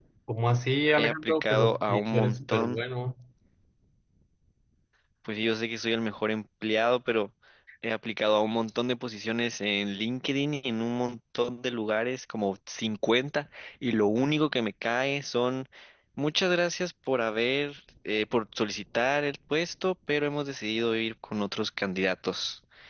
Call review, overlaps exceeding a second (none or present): present